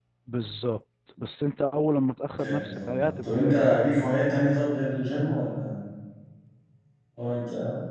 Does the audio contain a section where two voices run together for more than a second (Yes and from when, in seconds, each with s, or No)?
Yes, from 2.3 s